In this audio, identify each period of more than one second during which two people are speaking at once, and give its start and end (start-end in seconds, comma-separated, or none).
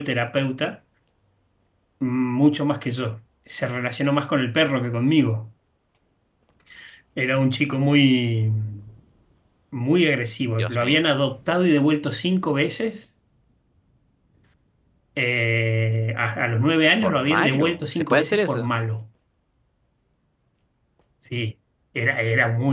17.0-18.7